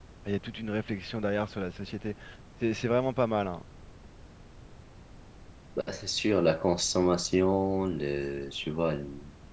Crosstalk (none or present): none